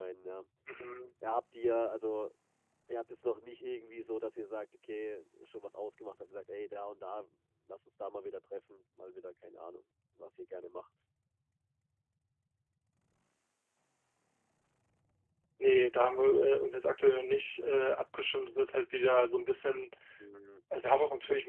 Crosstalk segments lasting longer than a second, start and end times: none

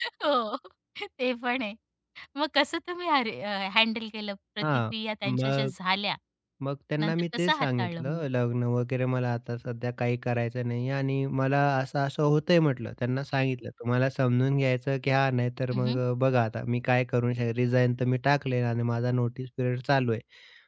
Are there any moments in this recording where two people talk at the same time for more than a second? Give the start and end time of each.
7.0-8.2

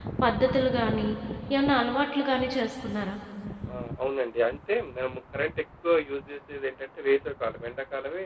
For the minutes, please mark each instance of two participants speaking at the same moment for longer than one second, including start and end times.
none

